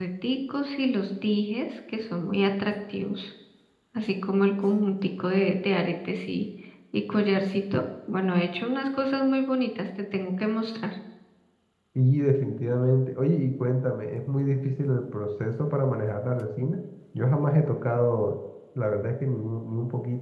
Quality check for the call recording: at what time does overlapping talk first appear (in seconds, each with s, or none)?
none